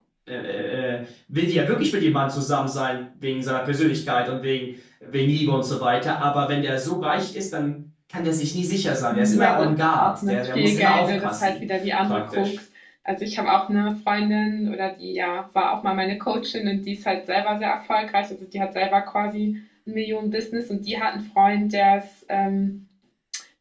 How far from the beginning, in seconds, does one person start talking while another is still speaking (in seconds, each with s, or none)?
9.1 s